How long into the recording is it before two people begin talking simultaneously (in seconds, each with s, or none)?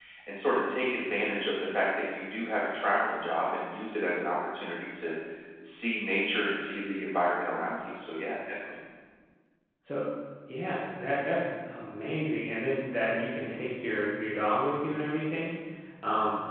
none